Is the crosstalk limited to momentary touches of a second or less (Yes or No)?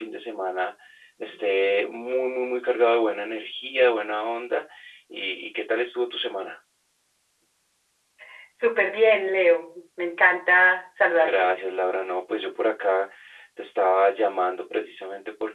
Yes